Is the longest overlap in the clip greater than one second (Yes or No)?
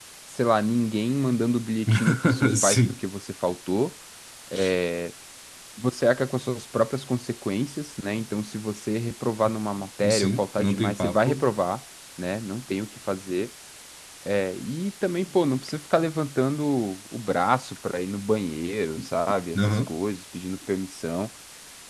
Yes